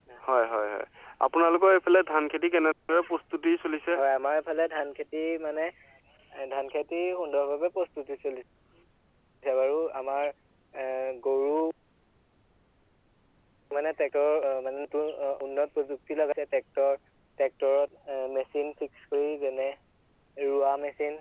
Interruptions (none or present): none